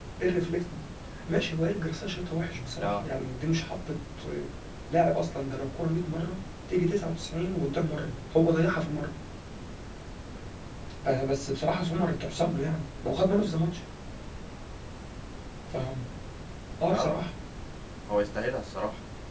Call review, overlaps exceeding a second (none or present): none